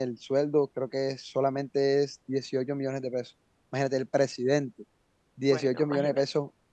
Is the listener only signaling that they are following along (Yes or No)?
Yes